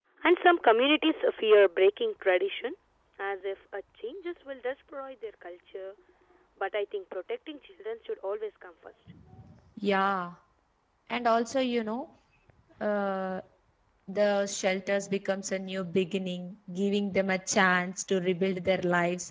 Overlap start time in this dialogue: none

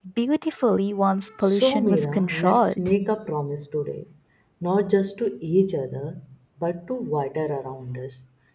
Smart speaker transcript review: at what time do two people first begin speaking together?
1.4 s

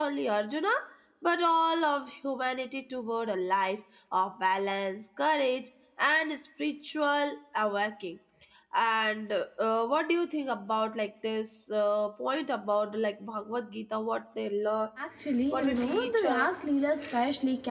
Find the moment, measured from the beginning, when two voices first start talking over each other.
15.5 s

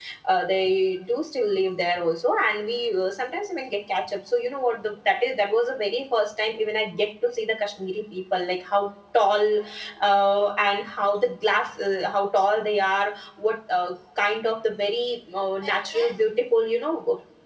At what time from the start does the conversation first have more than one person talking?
none

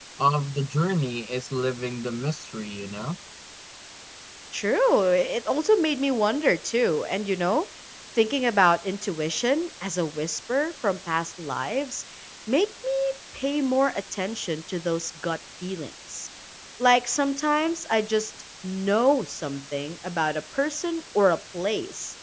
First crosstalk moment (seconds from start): none

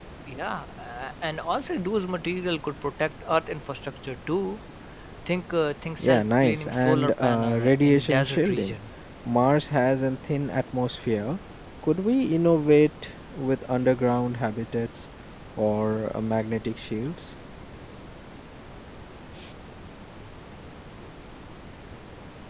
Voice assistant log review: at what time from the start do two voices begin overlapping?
6.0 s

